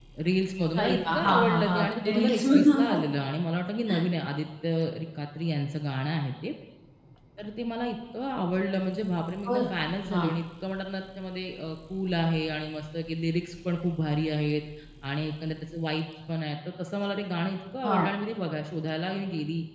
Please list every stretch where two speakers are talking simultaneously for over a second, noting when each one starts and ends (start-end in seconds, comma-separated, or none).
0.8-3.0